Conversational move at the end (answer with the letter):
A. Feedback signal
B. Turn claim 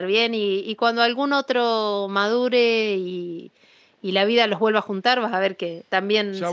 B